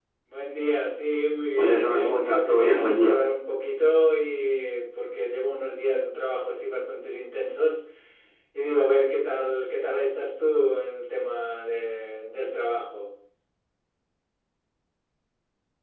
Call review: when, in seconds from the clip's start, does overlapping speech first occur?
1.6 s

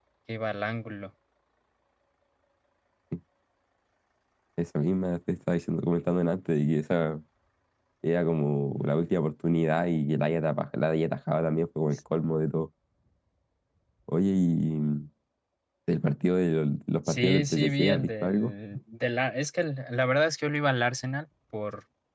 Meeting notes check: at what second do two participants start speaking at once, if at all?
17.1 s

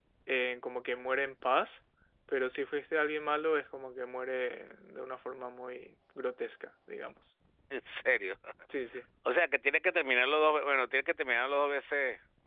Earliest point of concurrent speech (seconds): none

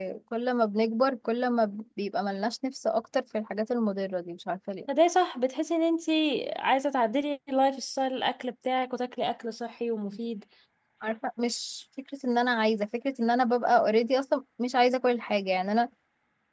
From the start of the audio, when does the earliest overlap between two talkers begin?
none

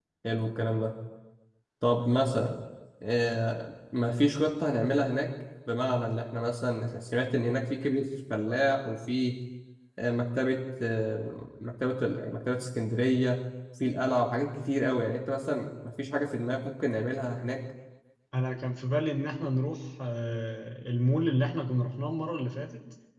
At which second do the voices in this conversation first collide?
none

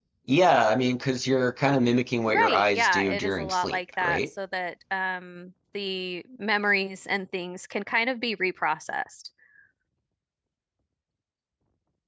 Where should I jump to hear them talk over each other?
2.3 s

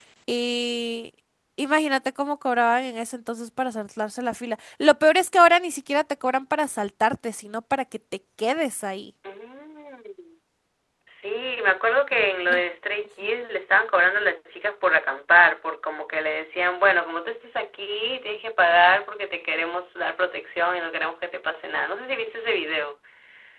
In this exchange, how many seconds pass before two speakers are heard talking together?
none

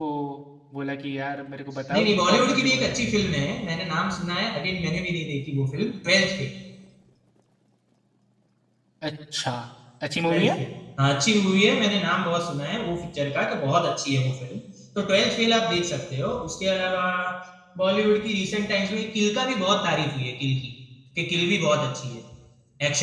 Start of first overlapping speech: 1.9 s

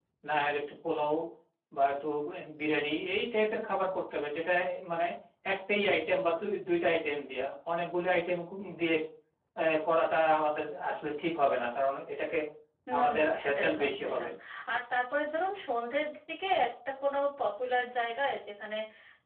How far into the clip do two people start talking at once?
13.0 s

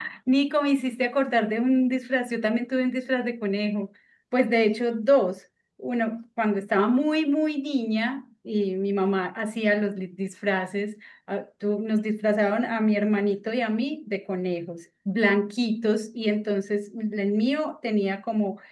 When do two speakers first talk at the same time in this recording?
none

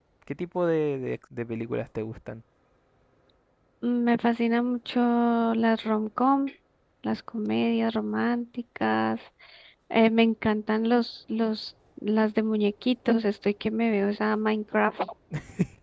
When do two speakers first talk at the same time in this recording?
none

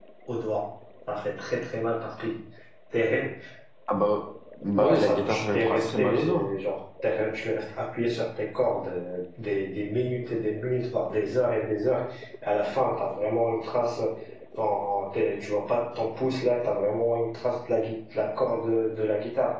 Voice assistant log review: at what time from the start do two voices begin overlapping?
4.8 s

